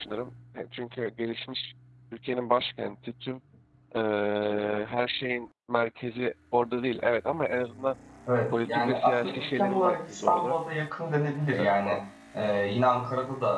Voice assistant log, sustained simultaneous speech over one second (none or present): present